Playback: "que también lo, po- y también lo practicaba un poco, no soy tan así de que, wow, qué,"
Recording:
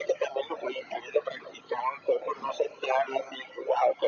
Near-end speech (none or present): none